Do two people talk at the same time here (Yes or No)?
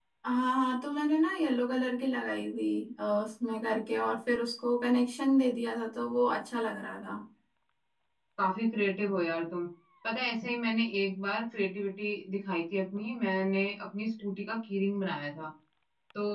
No